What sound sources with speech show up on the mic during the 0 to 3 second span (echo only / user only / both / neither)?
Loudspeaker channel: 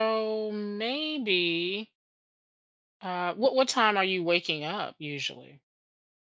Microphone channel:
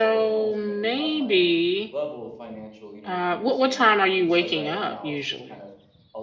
both